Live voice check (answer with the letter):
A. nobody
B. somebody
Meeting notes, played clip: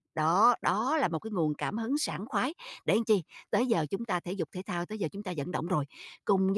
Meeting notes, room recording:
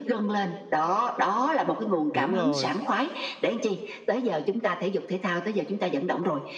B